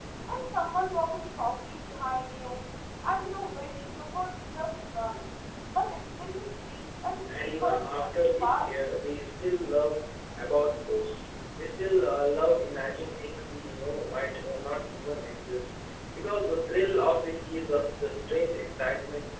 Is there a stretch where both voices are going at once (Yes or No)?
Yes